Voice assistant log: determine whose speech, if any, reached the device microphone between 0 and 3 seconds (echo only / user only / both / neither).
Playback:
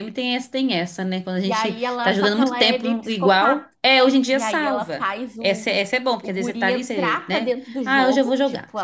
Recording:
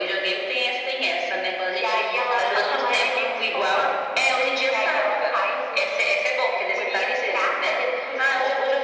echo only